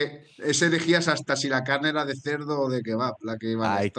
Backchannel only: No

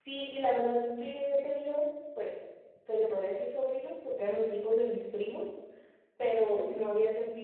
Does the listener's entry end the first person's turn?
No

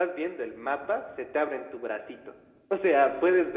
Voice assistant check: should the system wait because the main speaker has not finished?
Yes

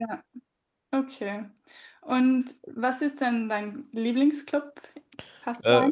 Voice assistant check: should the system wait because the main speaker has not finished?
No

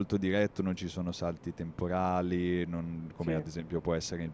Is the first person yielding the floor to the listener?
No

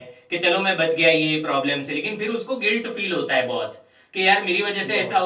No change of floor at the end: Yes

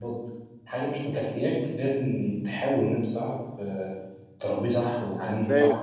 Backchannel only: No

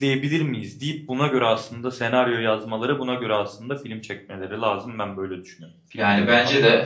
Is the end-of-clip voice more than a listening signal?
Yes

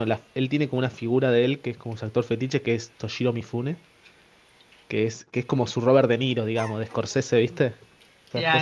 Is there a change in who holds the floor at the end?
Yes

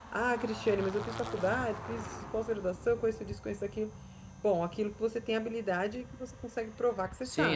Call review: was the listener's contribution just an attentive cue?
No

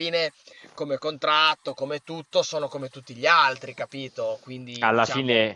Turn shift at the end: Yes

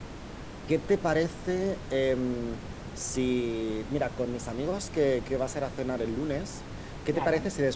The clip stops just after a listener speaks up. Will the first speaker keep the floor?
Yes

